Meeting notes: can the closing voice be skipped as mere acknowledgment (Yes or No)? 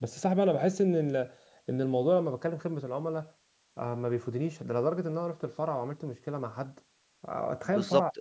No